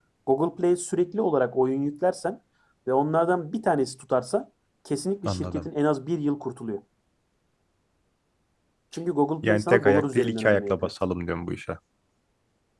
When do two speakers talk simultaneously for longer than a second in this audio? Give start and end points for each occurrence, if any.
9.4-10.7

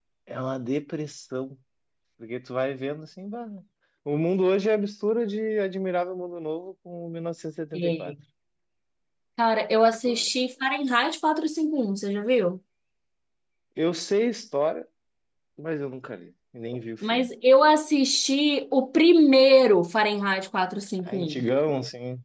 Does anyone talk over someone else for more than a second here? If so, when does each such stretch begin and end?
none

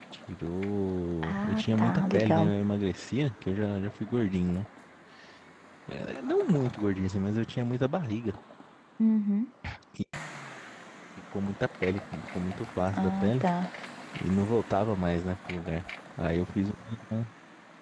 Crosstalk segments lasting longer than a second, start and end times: 1.2-2.5

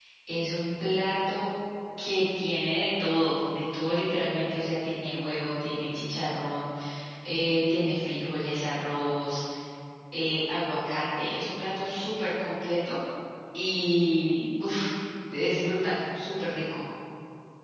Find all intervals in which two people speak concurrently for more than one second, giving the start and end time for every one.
none

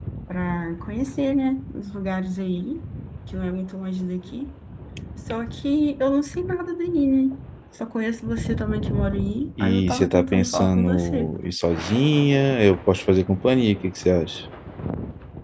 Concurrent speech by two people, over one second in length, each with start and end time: 9.6-11.3

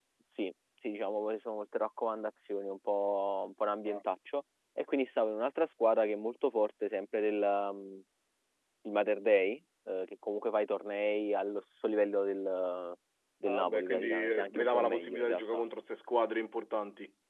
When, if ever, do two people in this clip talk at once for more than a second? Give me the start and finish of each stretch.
13.4-15.6

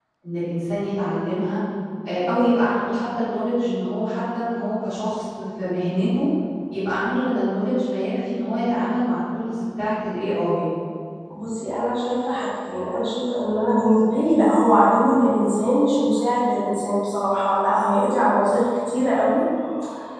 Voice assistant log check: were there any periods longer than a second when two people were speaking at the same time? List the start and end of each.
none

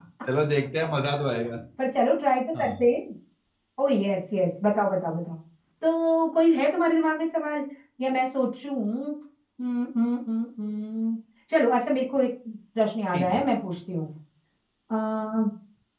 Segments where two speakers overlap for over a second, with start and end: none

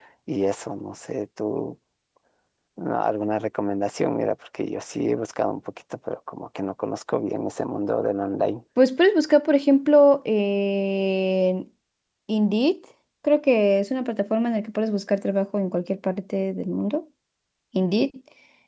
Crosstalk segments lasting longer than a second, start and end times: none

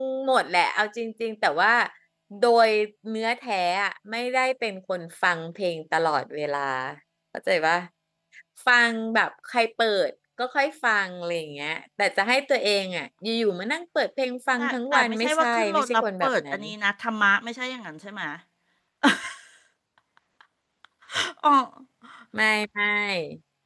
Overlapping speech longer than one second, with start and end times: 14.6-16.6

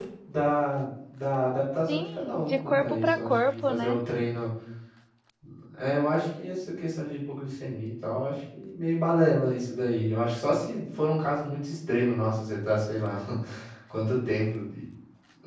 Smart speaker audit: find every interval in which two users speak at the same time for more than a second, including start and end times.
1.9-4.0

